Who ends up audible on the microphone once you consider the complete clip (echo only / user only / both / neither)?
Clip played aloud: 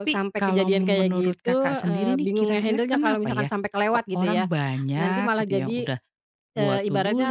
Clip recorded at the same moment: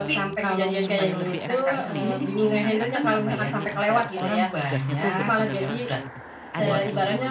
both